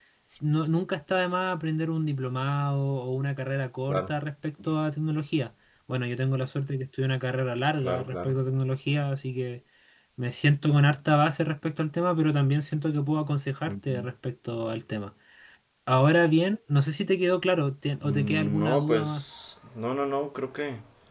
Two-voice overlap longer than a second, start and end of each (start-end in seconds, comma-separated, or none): 18.0-19.2